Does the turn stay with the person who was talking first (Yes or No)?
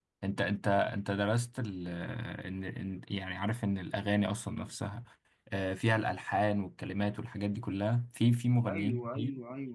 No